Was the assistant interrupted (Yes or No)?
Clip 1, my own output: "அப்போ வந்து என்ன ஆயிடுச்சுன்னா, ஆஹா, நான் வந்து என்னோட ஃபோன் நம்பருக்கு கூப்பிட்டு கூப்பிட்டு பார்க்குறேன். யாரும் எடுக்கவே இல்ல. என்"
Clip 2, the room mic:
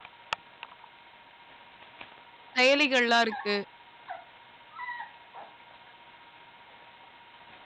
Yes